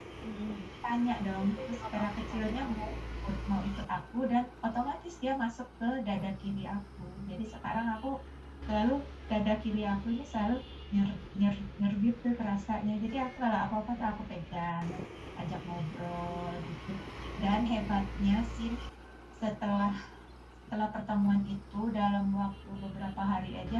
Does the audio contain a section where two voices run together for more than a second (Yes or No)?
Yes